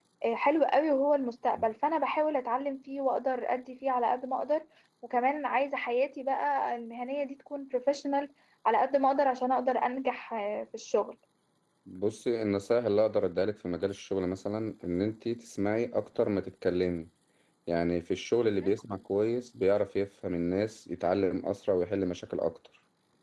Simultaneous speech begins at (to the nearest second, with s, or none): none